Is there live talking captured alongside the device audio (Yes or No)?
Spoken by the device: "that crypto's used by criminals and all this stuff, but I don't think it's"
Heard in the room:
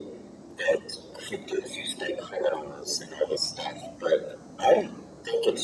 No